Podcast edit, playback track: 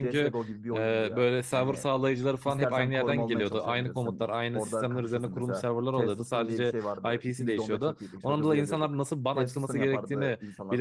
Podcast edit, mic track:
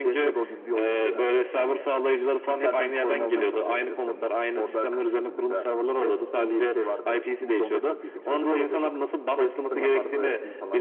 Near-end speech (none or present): none